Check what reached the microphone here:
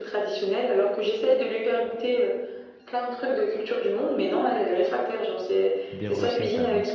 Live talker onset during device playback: 5.9 s

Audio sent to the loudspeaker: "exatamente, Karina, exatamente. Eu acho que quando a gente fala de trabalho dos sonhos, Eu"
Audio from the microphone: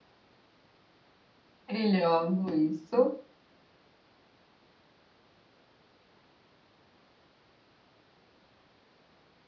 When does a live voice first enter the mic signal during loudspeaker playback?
1.7 s

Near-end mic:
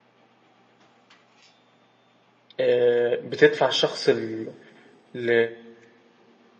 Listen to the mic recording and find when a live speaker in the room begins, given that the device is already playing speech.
2.6 s

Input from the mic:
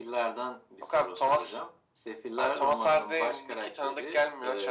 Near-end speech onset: none

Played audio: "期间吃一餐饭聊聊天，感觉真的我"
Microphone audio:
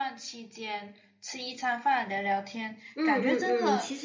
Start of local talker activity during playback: 2.9 s

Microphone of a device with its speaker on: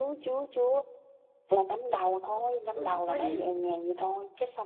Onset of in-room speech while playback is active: 2.2 s

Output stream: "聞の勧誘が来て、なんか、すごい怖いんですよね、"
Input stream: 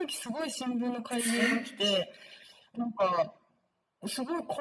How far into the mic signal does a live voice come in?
1.1 s

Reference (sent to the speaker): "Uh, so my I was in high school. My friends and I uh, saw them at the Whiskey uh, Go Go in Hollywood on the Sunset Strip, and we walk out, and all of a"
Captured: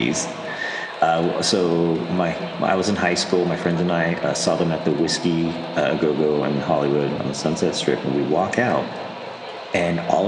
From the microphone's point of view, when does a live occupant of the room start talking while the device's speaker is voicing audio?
none

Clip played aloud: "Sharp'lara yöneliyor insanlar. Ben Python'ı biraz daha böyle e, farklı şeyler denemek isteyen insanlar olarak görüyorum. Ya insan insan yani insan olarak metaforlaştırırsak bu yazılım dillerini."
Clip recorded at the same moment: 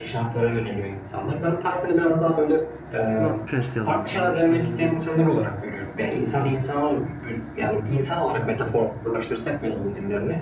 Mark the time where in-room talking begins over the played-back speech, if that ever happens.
3.2 s

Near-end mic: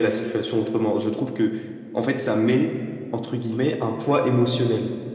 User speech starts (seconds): none

